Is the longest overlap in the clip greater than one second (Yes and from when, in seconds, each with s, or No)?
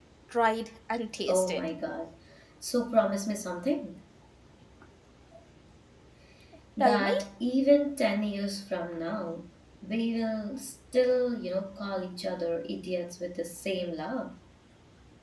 No